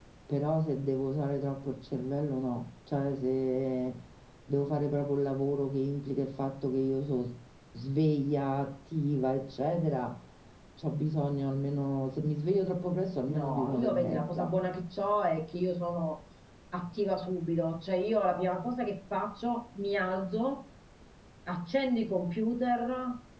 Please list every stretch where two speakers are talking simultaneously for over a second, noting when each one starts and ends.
13.3-14.6

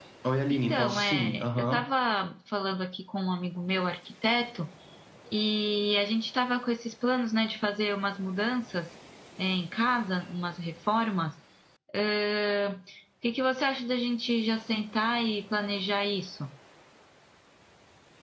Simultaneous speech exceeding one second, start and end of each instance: 0.5-1.9

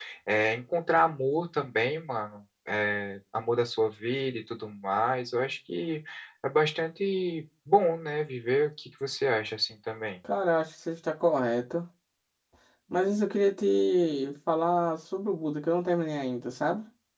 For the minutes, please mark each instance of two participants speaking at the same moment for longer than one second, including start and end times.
none

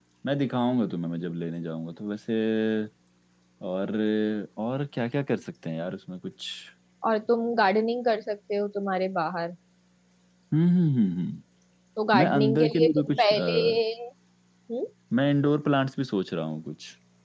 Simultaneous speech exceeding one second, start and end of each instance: 12.2-13.6

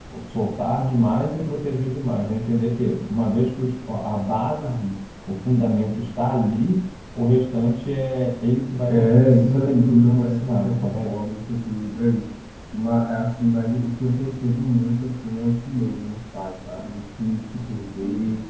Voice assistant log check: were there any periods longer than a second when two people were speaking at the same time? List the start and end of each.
8.9-11.1

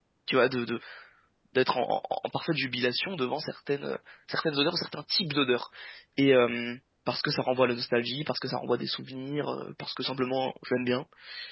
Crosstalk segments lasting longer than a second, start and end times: none

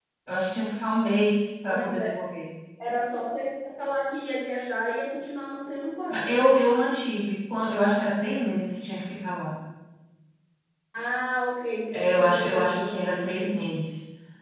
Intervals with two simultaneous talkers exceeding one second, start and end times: 11.9-13.5

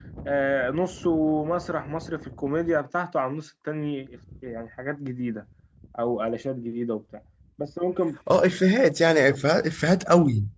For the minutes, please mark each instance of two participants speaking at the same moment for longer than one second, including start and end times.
none

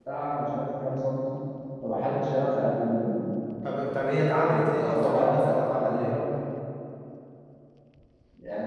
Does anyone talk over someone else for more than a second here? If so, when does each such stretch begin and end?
4.5-6.1

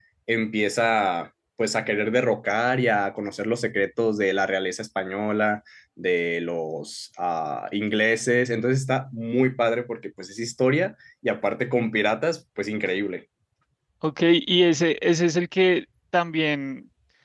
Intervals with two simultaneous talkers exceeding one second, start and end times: none

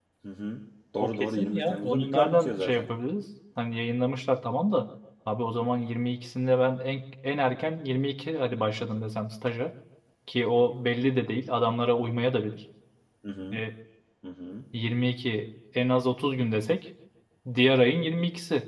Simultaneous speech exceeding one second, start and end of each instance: 1.0-2.9

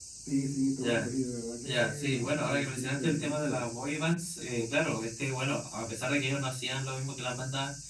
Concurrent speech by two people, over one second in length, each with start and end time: 1.6-3.7

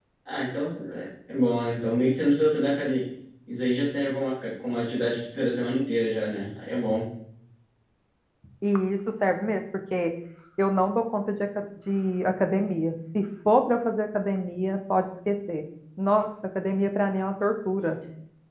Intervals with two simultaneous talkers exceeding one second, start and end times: none

